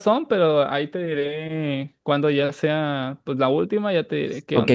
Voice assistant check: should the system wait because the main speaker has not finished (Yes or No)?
No